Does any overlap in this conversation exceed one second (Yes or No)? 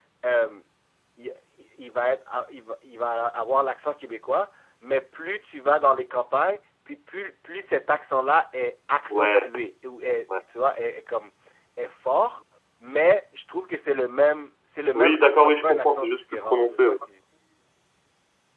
Yes